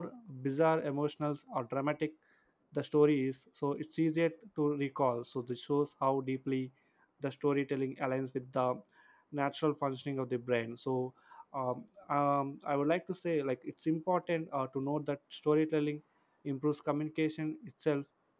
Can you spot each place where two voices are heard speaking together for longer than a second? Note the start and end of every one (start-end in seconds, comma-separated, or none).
none